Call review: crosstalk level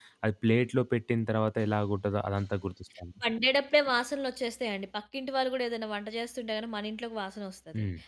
none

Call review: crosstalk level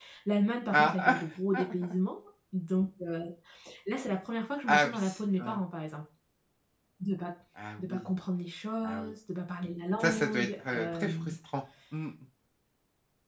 present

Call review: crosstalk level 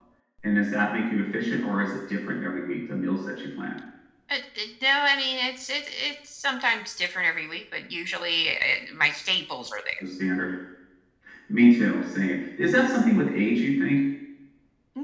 none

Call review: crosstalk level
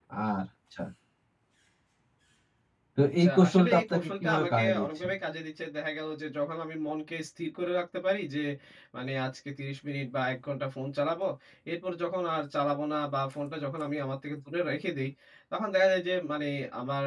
present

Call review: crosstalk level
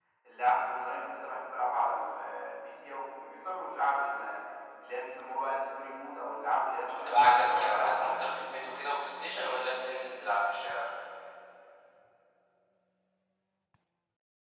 present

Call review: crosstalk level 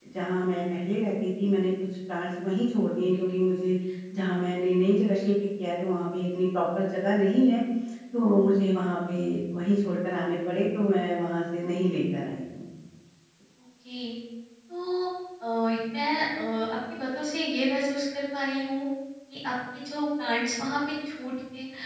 none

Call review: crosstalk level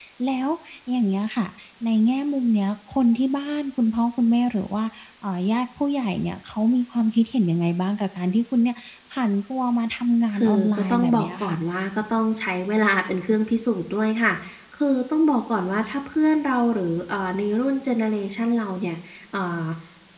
present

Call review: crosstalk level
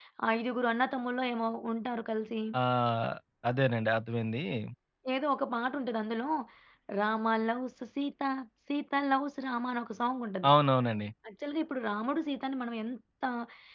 none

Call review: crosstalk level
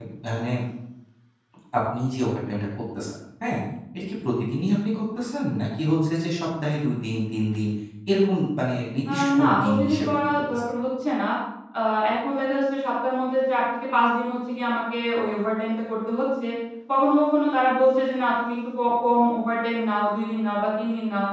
present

